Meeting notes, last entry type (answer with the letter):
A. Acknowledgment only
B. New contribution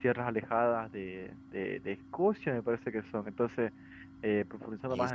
A